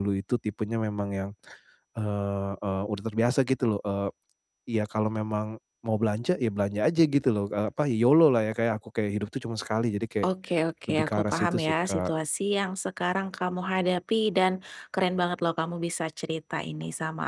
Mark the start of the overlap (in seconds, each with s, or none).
10.9 s